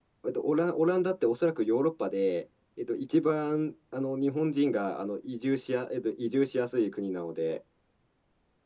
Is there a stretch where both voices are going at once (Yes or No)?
No